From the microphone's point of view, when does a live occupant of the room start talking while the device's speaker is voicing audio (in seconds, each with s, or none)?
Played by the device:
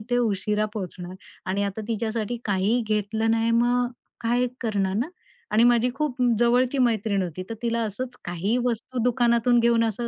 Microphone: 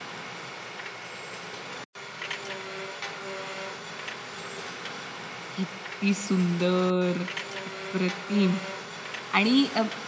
5.5 s